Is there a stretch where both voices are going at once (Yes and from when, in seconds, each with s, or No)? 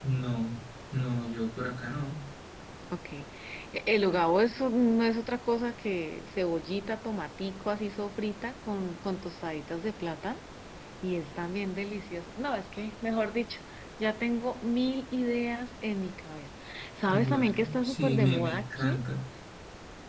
Yes, from 17.1 s